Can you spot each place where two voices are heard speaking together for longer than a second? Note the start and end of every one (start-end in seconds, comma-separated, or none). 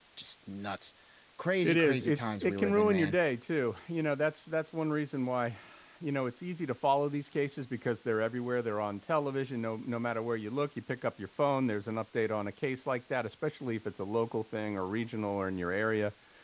1.6-3.2